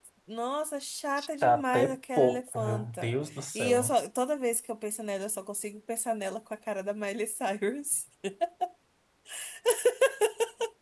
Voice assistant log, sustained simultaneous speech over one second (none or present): present